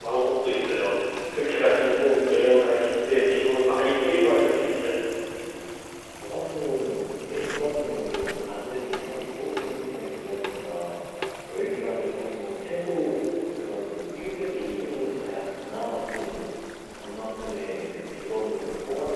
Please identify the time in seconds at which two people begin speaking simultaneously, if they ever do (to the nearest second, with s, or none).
none